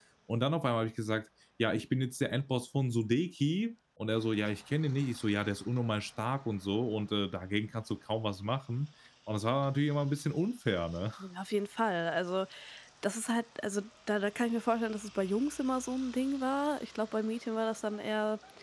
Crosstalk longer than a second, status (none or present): none